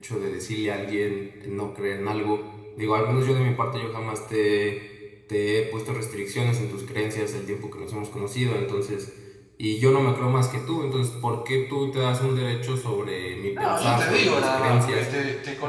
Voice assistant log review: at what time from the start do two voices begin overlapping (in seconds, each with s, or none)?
13.5 s